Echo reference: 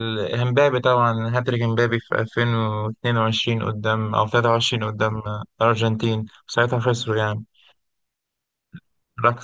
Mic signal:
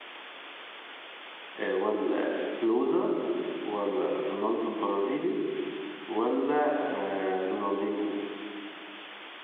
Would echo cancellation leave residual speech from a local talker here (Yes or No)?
Yes